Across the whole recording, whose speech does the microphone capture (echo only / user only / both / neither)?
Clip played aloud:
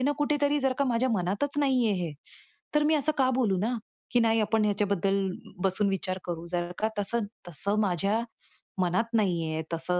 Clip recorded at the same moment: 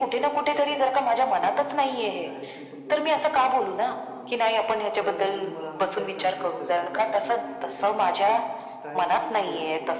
both